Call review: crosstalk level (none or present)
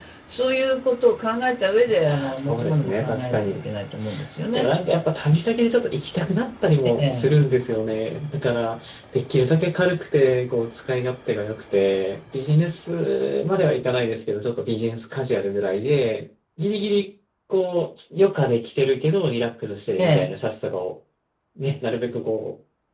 present